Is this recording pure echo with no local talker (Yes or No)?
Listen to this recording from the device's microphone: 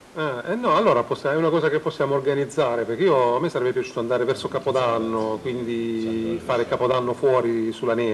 No